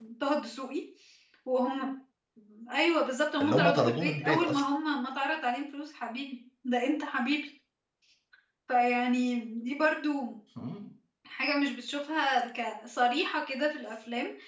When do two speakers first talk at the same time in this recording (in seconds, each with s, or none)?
3.4 s